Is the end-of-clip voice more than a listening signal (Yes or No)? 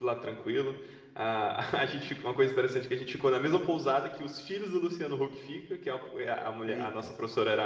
No